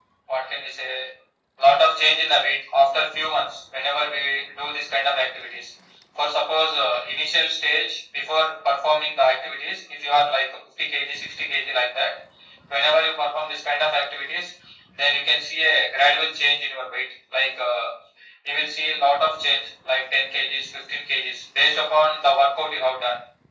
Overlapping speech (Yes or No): No